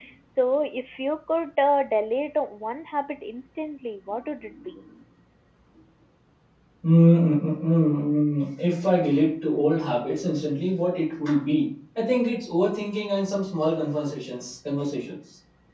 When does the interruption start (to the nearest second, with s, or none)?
none